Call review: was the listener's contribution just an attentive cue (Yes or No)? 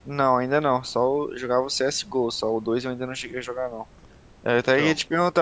Yes